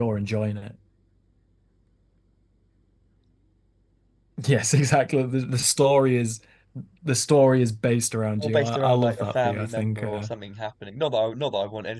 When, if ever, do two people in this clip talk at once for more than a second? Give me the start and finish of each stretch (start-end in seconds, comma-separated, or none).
8.4-10.3